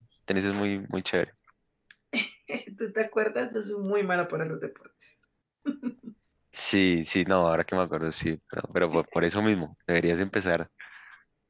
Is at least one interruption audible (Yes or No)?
No